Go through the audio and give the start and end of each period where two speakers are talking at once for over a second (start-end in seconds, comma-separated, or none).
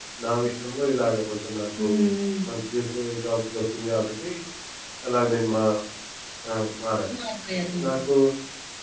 none